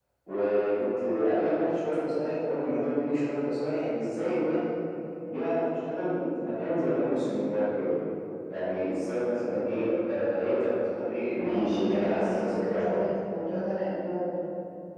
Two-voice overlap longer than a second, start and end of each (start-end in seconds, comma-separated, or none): 11.3-13.0